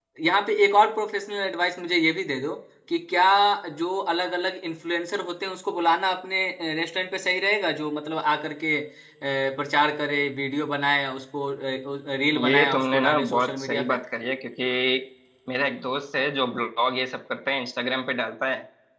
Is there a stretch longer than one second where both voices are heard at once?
Yes, from 12.4 s

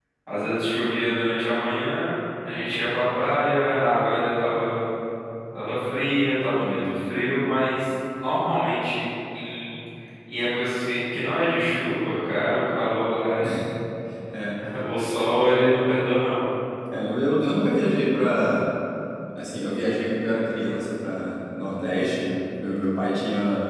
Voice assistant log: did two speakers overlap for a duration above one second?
No

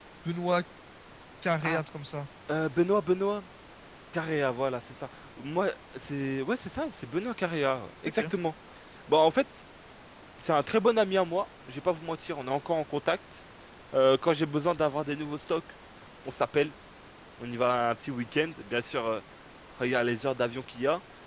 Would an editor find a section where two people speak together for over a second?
No

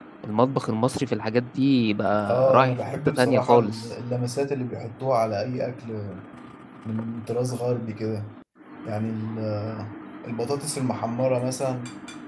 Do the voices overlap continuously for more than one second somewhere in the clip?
Yes, from 2.3 s

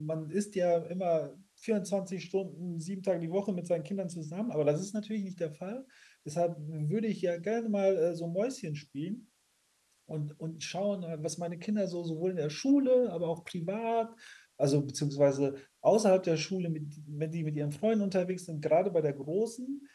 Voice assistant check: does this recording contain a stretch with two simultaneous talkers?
No

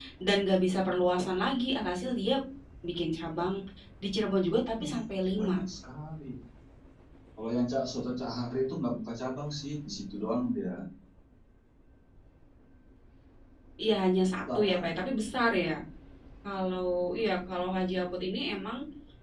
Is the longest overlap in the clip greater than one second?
No

